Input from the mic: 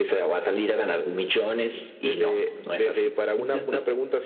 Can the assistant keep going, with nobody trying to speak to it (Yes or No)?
Yes